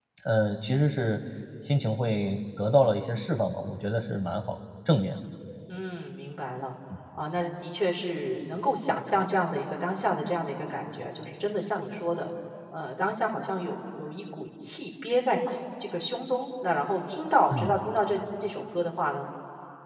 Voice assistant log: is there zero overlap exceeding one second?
Yes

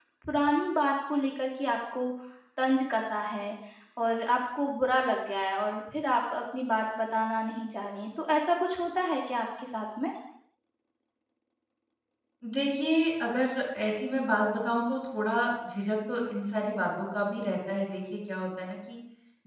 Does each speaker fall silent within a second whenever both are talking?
Yes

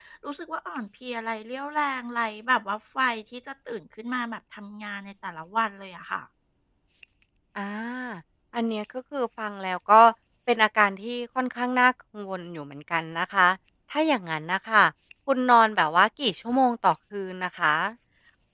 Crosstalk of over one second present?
No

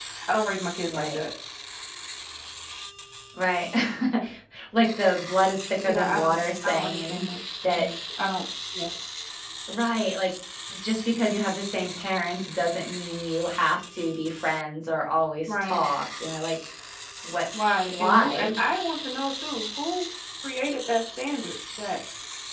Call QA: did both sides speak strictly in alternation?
No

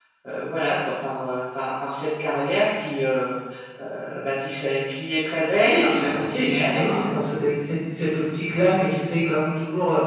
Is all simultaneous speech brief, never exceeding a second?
No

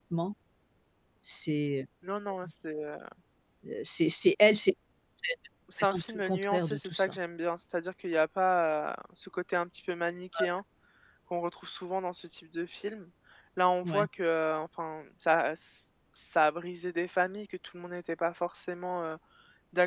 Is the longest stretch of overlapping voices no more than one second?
No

